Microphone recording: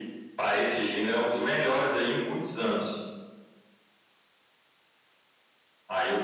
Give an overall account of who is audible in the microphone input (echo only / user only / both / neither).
echo only